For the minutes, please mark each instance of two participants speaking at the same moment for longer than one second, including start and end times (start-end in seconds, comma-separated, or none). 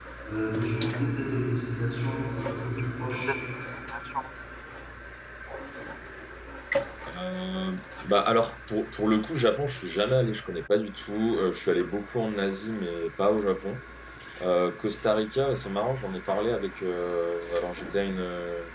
none